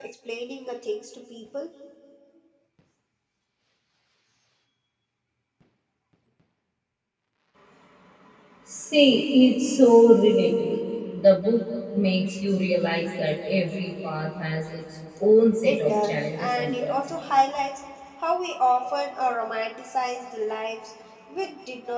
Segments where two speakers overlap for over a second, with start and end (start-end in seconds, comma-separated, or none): 15.6-16.9